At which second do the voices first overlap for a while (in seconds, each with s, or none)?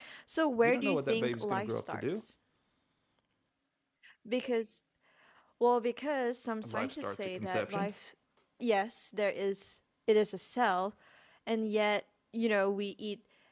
0.6 s